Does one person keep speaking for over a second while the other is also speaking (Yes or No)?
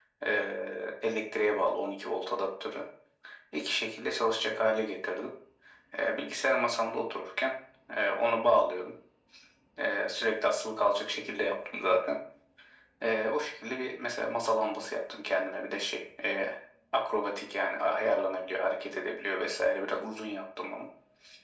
No